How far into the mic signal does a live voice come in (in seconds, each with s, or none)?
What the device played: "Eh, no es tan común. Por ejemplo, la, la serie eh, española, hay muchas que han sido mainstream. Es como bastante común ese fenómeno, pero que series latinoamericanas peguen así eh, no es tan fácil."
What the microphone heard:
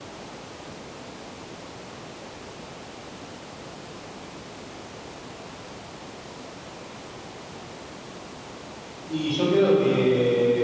9.1 s